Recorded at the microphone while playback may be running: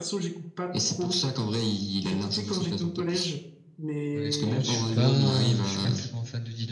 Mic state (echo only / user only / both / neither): both